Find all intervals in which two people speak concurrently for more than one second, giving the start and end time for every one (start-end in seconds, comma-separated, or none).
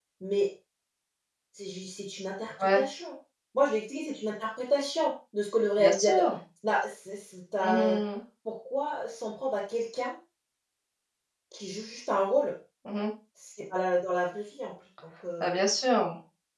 none